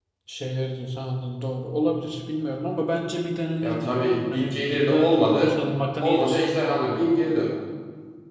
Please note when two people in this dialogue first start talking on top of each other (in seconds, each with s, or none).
3.6 s